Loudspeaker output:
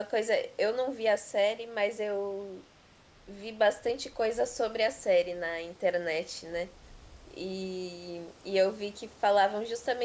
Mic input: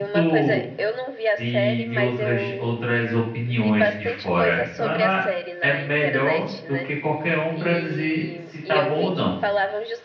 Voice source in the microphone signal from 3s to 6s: both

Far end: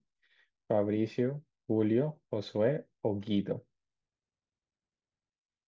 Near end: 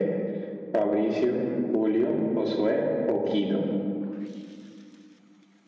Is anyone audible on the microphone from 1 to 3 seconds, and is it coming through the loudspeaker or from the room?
echo only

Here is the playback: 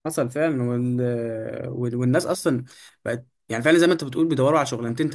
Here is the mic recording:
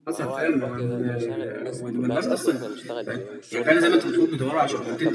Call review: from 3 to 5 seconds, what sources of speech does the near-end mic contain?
both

